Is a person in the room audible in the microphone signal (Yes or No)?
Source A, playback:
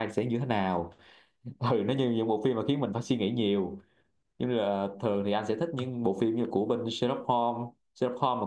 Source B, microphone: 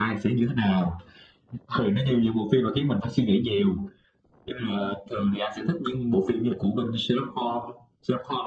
No